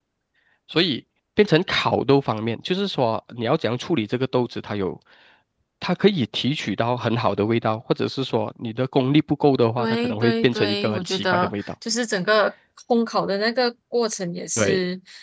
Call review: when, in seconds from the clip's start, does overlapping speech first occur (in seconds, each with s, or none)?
9.8 s